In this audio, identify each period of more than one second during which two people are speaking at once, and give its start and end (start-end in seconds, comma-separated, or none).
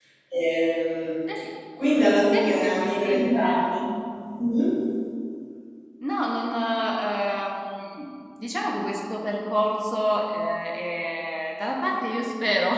2.3-3.6